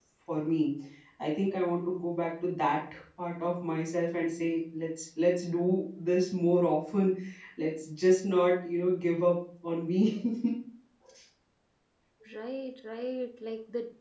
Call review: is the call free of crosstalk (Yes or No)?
Yes